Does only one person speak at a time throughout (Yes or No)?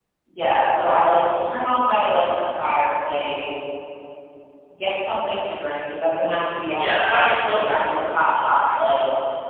No